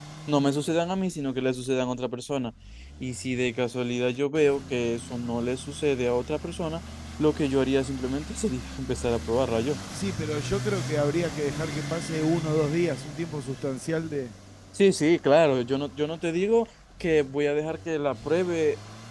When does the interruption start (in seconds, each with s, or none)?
none